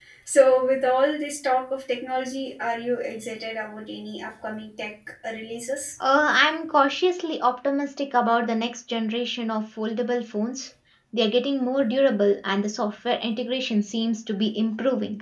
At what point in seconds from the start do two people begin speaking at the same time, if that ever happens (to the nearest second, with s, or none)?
none